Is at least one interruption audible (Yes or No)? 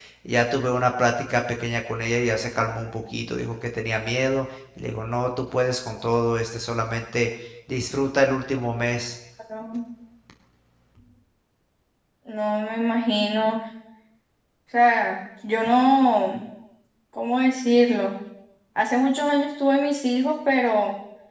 No